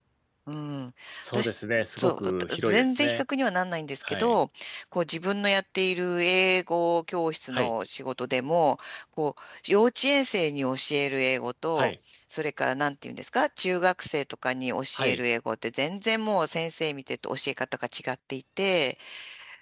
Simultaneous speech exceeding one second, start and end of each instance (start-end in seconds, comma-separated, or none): 2.0-3.2